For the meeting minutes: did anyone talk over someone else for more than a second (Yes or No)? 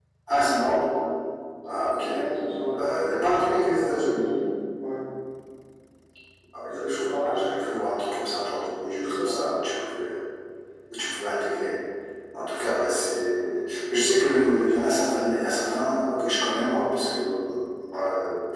Yes